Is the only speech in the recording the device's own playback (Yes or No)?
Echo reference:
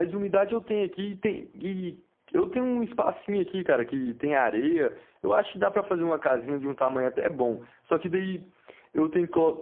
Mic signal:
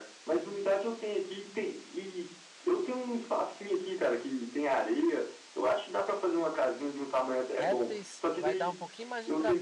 No